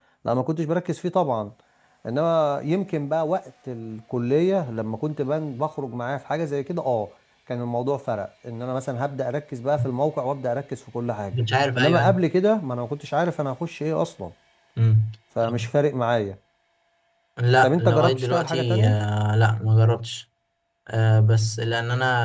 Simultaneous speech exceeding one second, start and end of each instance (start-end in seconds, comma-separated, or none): 17.6-18.9